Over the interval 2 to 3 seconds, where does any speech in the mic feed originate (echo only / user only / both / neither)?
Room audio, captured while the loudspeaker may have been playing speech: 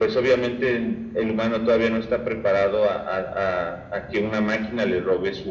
echo only